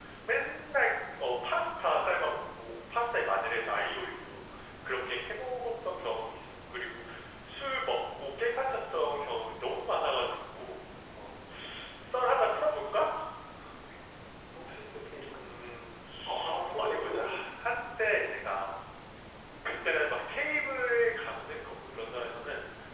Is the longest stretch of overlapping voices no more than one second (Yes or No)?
Yes